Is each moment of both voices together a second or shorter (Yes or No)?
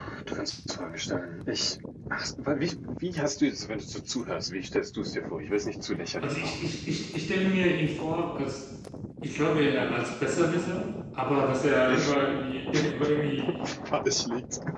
Yes